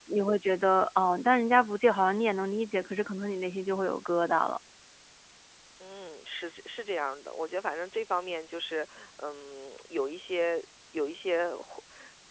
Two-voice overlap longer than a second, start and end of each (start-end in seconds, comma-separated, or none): none